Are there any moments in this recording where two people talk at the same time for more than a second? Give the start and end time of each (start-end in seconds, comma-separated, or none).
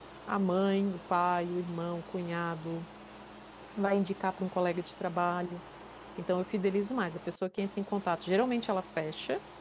none